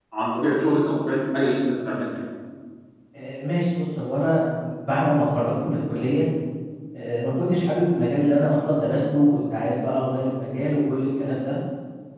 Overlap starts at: none

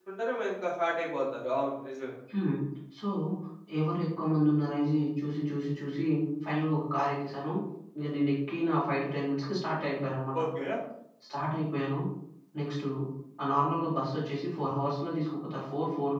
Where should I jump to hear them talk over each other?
none

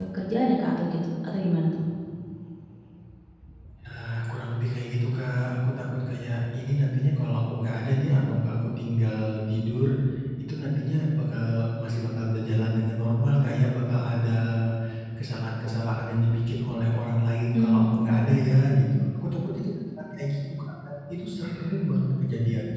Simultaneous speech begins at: 18 s

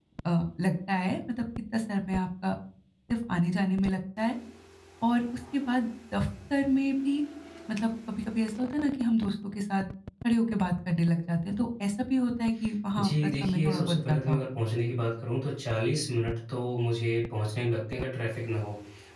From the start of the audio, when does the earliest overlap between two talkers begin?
13 s

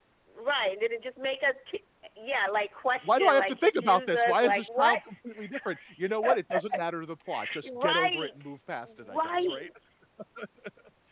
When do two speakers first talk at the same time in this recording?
3 s

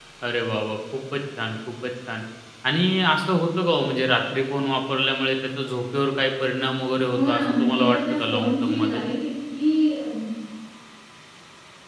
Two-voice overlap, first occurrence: 7 s

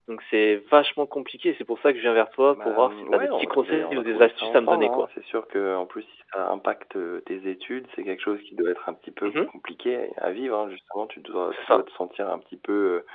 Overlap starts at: 3 s

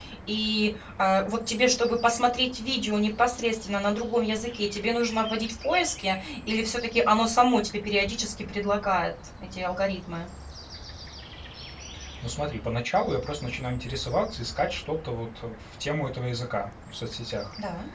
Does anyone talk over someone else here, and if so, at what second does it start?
none

